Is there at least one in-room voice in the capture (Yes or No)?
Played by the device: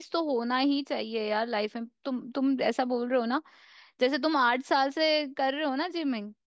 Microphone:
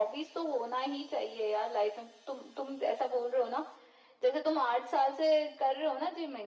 No